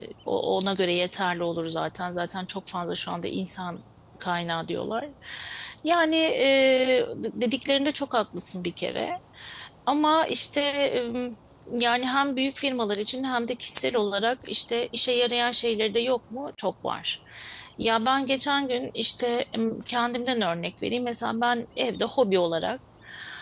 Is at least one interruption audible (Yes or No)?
No